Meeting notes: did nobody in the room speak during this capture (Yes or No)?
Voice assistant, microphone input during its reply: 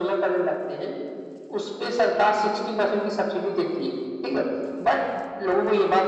Yes